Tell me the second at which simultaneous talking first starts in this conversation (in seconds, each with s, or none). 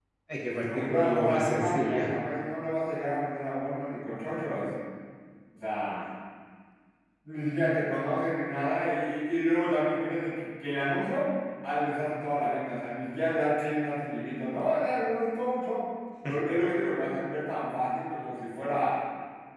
0.5 s